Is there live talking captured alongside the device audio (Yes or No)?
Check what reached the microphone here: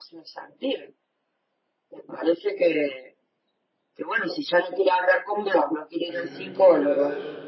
Yes